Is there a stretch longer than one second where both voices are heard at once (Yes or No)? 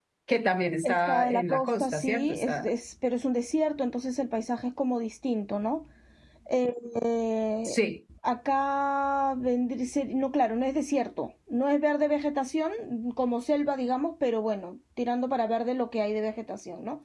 Yes